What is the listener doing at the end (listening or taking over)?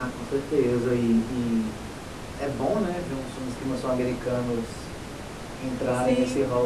taking over